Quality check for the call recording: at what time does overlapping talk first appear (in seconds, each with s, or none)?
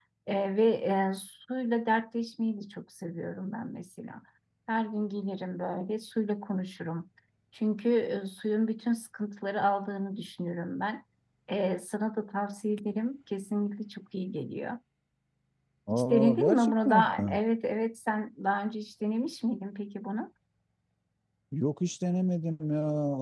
15.9 s